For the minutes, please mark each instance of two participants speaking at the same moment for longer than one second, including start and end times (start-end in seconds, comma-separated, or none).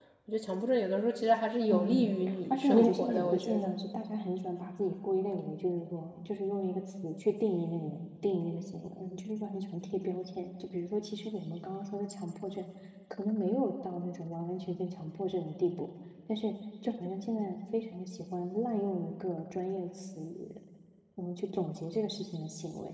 1.7-3.7